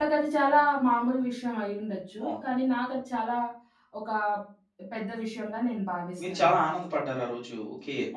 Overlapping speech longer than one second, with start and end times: none

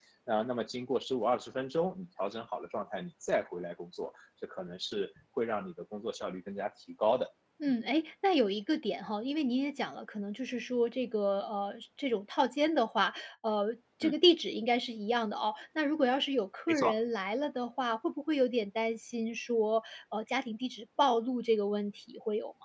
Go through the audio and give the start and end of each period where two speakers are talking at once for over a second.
none

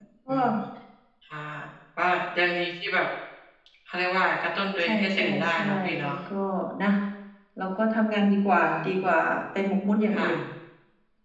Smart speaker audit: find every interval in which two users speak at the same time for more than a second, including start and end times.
4.8-6.1

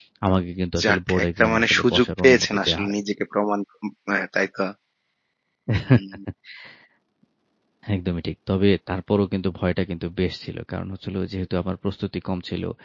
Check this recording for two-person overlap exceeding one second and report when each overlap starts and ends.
0.8-2.9

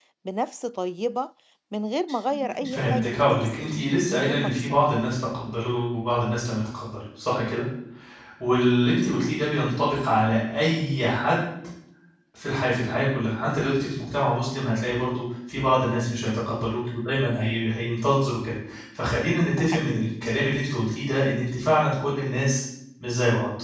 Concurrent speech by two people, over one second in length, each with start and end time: 2.7-4.9

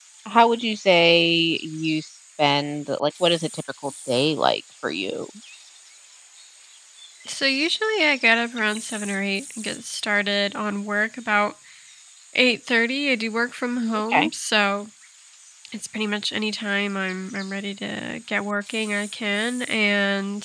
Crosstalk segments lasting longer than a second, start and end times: none

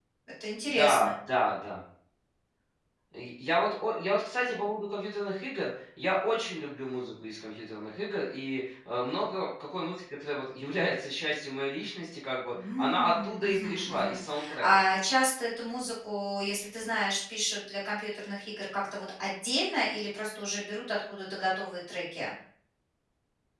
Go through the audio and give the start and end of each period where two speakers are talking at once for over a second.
12.8-14.7

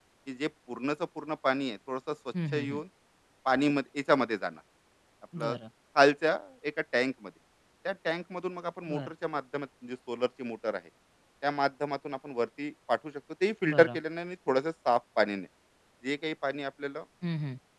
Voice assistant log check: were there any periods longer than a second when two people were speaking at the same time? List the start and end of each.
none

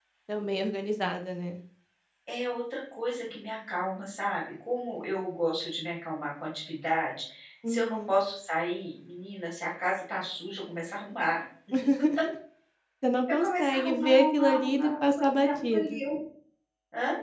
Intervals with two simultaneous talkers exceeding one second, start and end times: 13.3-16.0

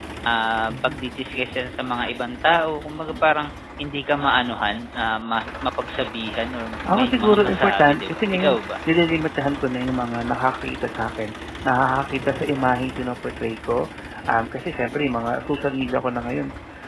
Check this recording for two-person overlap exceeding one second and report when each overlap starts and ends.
6.9-8.7

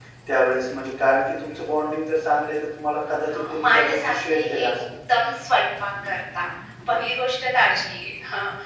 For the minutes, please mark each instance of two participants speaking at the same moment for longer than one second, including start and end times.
3.3-4.7

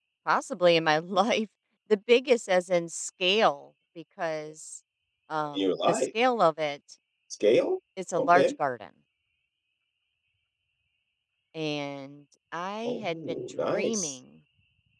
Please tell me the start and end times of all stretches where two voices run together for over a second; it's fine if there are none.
12.9-14.1

